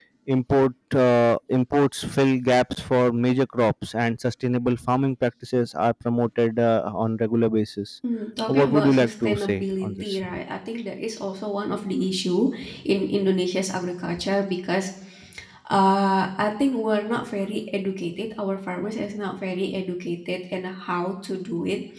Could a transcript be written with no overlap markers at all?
No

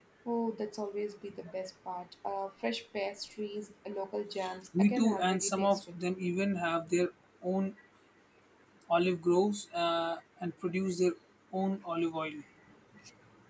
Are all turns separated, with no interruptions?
No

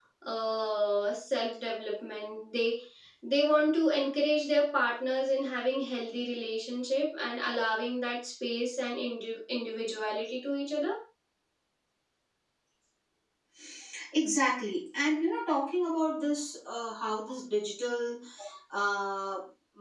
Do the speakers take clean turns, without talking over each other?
Yes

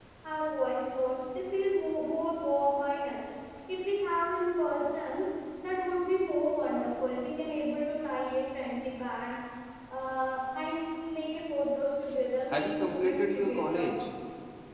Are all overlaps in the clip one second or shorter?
No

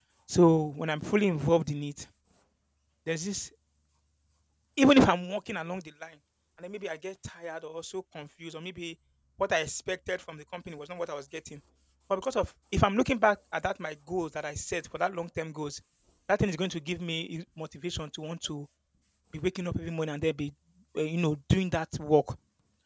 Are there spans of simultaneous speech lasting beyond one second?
No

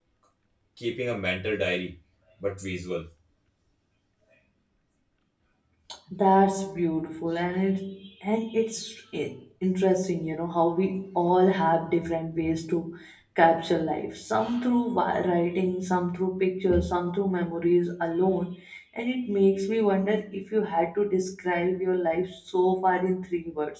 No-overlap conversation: Yes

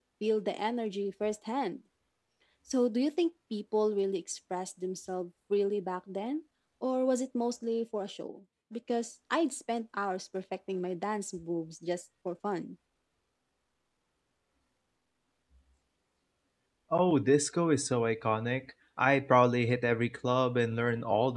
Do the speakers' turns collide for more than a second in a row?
No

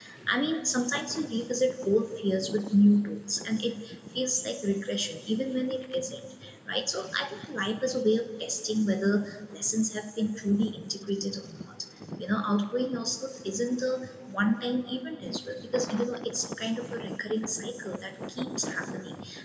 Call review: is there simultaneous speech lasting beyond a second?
No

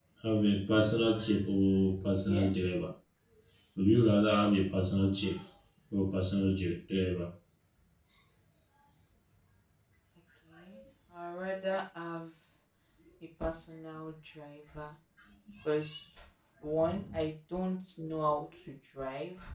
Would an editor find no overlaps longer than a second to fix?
Yes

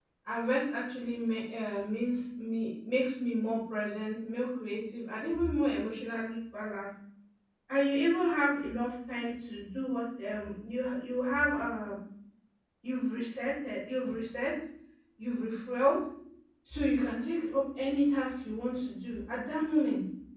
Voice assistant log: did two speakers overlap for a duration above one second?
No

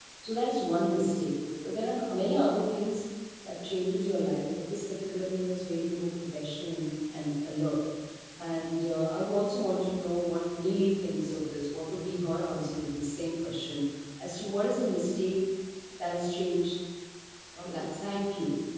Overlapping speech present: No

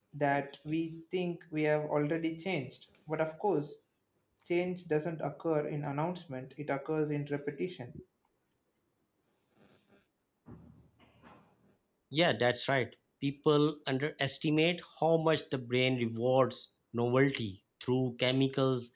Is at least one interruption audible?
No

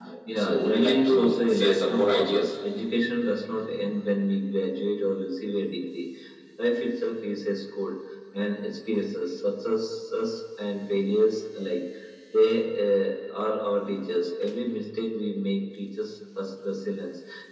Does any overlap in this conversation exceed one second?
Yes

